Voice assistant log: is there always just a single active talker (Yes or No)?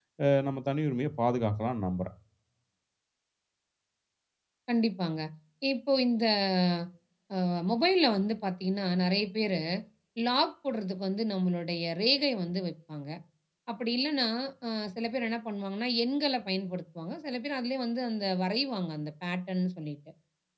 Yes